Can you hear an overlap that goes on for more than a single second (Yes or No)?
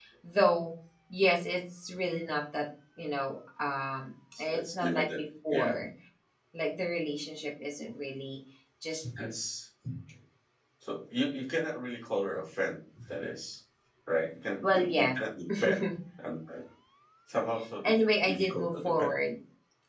Yes